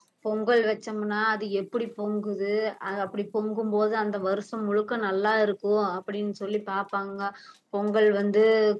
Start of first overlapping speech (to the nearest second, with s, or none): none